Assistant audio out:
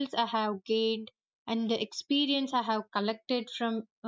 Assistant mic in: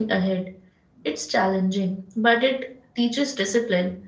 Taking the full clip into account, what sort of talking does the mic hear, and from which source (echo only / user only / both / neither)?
user only